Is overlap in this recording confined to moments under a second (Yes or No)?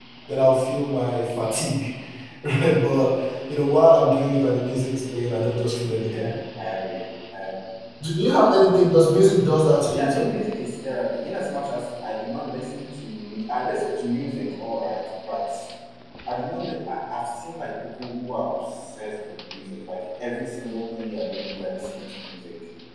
Yes